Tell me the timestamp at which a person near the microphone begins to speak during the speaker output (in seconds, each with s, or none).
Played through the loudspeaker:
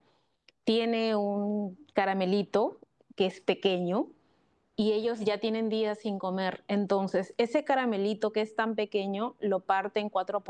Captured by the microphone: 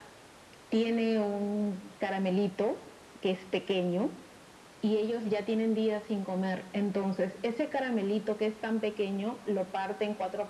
none